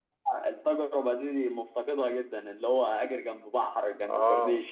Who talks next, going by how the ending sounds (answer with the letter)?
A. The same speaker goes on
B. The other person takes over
B